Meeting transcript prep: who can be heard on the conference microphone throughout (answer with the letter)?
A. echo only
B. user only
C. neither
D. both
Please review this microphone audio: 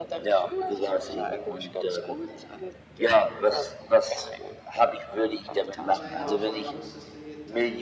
D